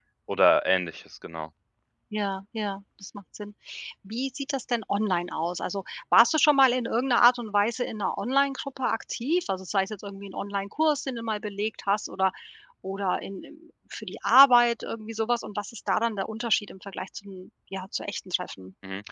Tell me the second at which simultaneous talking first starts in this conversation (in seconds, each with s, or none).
none